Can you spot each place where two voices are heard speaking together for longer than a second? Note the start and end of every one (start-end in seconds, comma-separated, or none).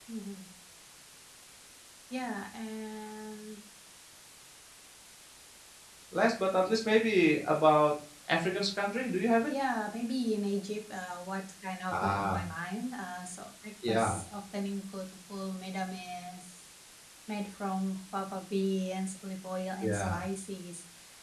none